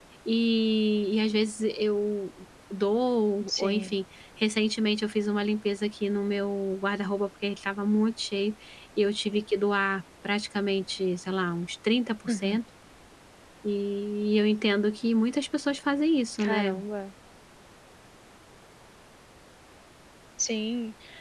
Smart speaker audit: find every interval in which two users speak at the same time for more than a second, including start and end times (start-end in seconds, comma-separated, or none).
none